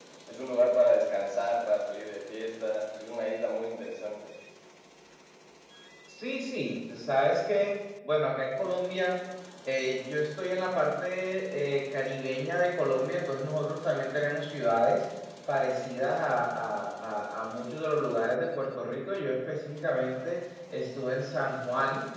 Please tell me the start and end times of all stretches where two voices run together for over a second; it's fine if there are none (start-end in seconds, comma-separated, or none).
none